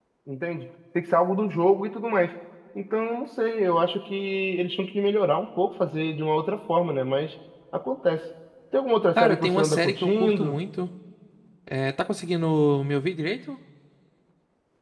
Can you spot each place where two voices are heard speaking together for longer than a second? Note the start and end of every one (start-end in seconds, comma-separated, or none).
9.2-10.6